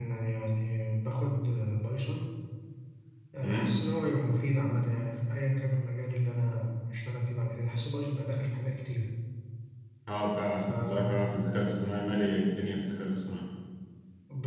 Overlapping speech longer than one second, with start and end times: none

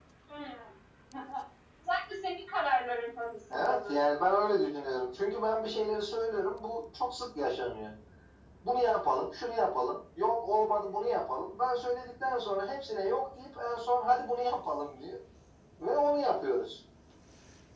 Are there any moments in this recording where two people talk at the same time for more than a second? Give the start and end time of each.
none

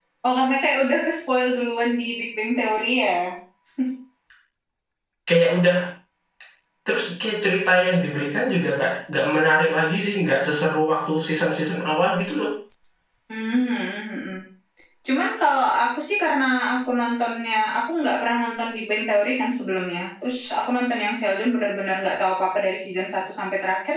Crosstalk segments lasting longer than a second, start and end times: none

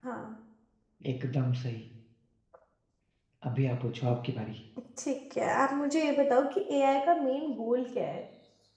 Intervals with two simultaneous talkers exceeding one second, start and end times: none

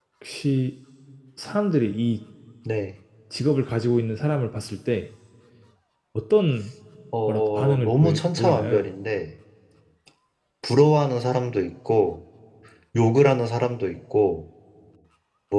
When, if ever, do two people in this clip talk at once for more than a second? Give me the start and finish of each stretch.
7.3-8.9

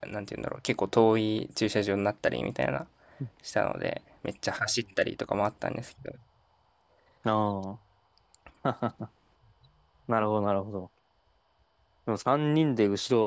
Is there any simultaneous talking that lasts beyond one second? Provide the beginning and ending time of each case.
none

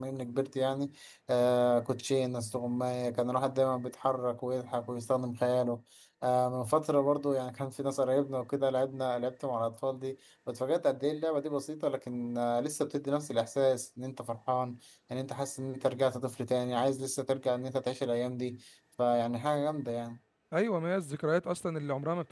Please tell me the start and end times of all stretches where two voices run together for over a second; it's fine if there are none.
none

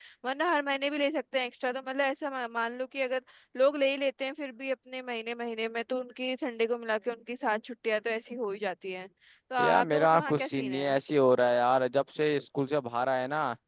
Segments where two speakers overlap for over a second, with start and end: 9.6-11.0

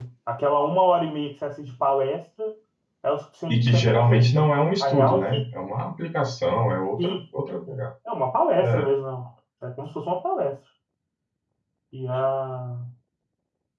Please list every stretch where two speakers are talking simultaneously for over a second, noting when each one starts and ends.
3.5-5.4

